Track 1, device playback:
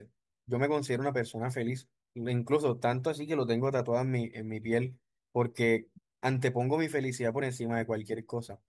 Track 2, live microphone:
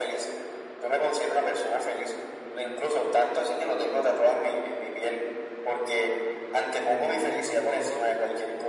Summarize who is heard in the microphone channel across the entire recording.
both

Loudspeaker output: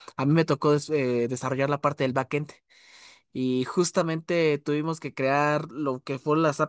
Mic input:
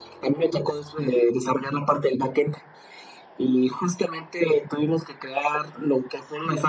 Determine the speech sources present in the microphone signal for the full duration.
echo only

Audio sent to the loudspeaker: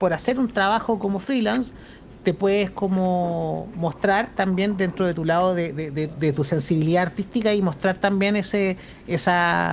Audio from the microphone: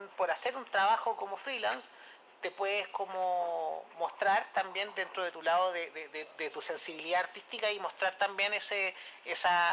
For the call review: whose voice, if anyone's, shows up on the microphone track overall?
echo only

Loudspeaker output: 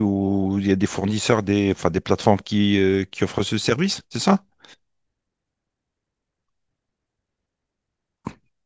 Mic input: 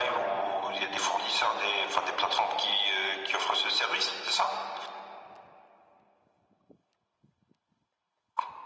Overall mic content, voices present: echo only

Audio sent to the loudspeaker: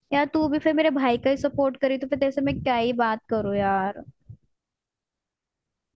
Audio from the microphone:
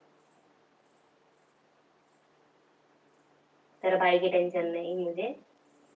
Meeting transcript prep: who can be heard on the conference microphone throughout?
user only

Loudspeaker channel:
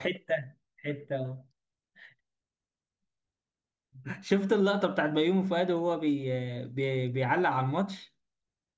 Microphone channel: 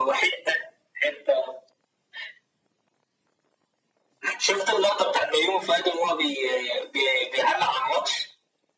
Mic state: echo only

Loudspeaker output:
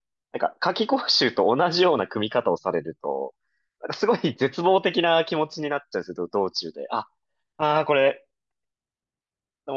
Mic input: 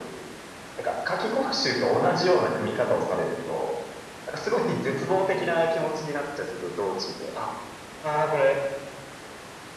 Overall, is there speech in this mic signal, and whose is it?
echo only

